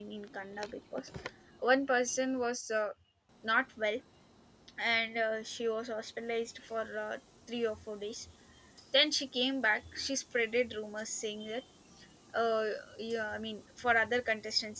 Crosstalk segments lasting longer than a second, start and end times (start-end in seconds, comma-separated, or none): none